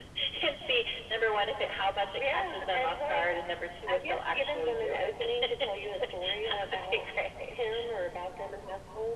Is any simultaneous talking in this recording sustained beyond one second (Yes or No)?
Yes